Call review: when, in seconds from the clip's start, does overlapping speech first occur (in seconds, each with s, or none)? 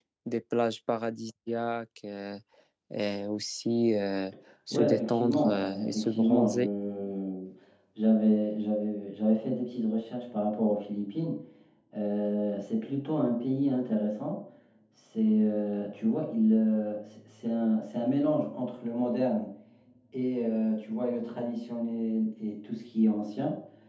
4.7 s